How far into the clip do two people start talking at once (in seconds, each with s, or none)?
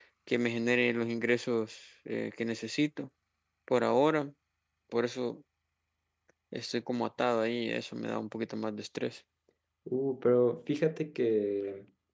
none